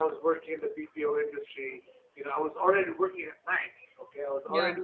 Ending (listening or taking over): listening